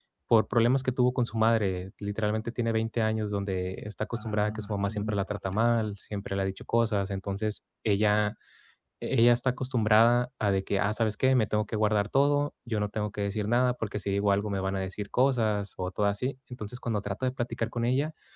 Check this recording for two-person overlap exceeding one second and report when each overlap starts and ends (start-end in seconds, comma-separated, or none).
4.1-5.6